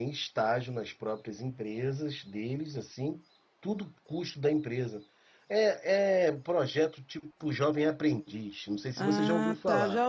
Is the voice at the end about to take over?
Yes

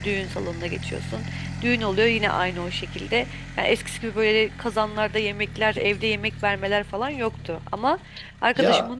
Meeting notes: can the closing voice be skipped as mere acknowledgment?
Yes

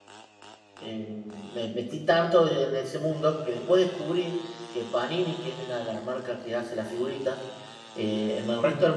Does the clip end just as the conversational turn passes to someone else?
No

